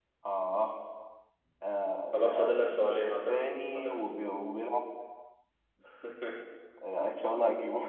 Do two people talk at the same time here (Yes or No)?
Yes